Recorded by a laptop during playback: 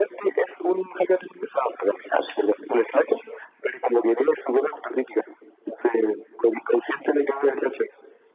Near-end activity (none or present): none